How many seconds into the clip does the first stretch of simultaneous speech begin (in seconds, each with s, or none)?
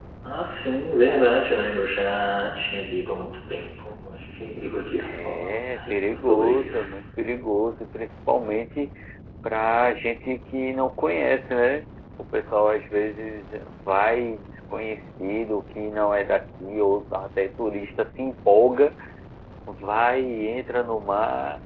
5.0 s